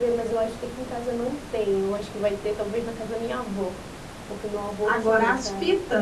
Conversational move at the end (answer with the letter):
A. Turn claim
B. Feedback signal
A